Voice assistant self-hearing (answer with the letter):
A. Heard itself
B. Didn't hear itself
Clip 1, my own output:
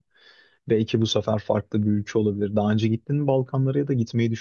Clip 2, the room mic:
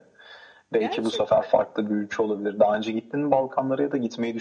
A